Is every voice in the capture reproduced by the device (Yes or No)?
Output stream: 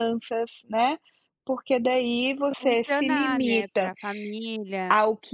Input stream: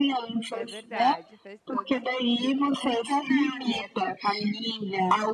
No